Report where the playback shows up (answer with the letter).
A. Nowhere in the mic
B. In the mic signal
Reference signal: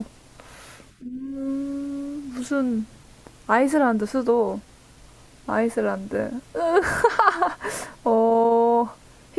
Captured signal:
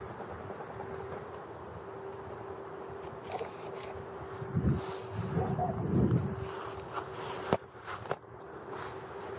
A